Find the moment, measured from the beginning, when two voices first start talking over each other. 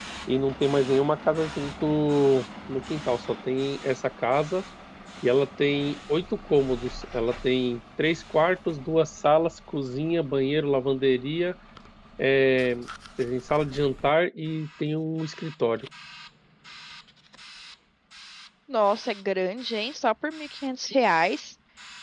none

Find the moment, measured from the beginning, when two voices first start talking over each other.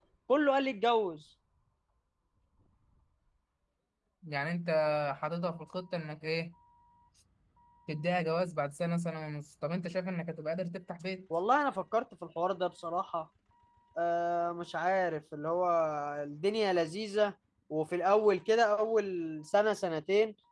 none

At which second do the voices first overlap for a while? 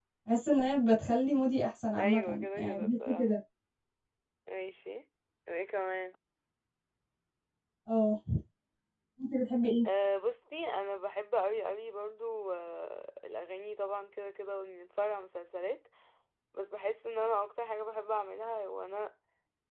1.9 s

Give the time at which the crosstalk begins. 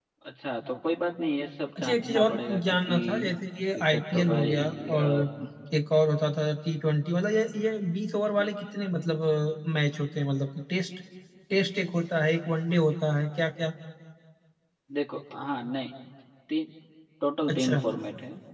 1.8 s

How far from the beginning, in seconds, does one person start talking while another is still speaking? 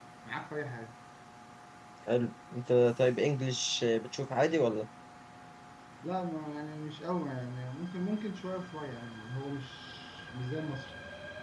none

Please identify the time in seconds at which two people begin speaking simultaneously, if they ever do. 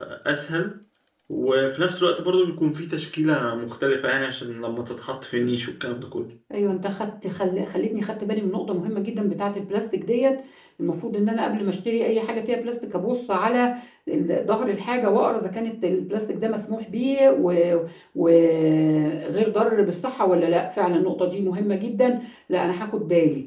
none

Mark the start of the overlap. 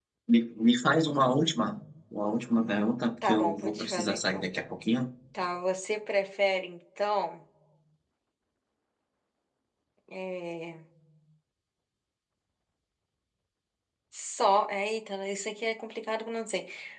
3.2 s

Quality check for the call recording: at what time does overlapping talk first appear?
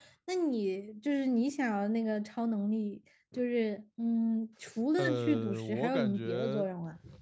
5.0 s

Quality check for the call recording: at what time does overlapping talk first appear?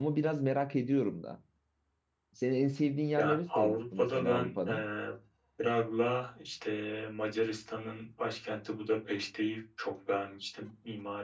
3.2 s

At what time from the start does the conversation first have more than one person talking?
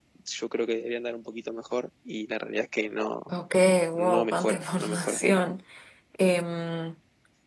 3.9 s

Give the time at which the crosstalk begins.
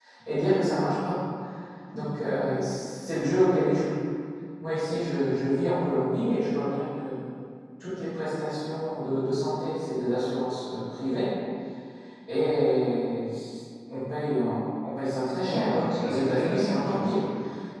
15.5 s

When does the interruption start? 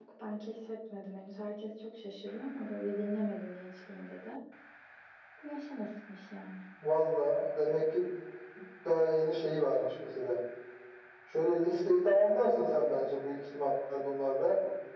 none

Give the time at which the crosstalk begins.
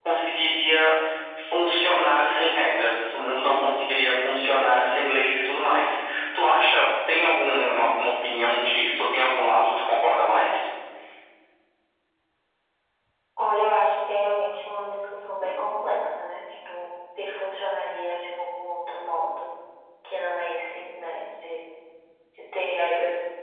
none

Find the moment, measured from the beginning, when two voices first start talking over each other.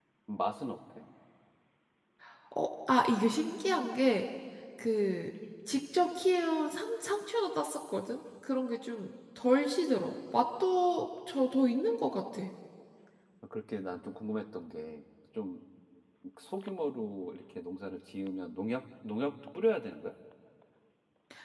none

